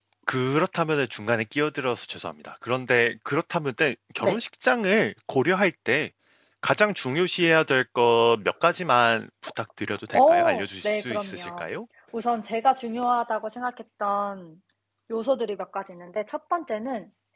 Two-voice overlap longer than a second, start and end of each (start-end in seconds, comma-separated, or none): 10.1-11.6